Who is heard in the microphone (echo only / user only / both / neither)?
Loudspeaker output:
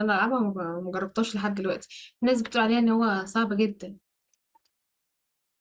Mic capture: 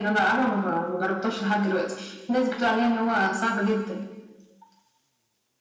echo only